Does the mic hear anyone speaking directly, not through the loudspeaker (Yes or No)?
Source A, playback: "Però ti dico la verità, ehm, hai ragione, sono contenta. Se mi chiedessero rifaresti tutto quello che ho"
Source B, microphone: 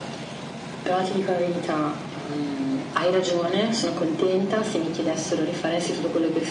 No